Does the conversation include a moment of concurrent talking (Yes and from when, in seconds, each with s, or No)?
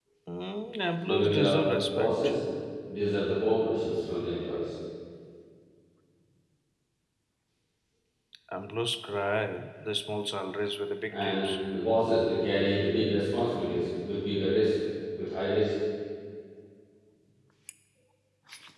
Yes, from 1.0 s